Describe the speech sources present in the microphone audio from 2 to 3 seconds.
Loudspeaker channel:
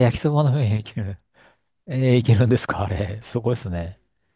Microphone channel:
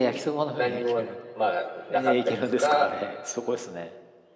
both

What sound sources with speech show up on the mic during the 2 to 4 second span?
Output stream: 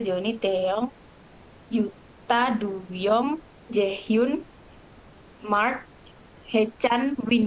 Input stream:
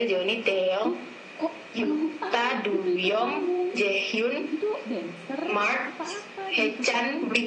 both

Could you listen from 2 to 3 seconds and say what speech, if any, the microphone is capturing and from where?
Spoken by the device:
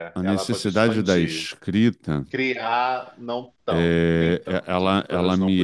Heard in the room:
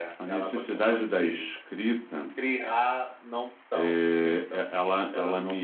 echo only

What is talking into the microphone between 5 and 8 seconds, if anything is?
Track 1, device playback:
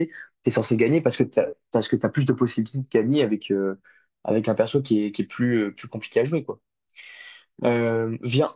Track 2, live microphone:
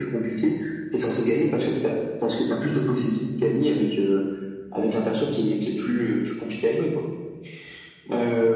echo only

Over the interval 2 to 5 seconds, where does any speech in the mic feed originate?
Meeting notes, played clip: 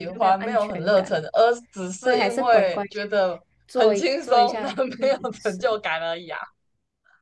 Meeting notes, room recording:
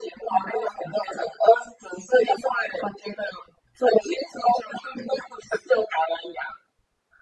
echo only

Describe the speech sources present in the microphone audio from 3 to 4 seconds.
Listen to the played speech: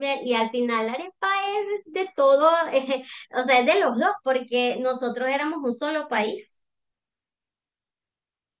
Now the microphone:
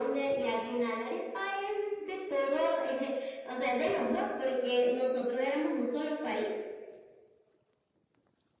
echo only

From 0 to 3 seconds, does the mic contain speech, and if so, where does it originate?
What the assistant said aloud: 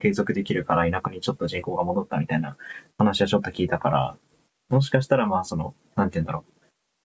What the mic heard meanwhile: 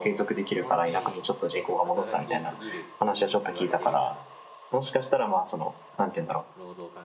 both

